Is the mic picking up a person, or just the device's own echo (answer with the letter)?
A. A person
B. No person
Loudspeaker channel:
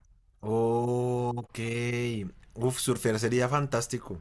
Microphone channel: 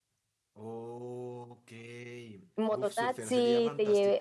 A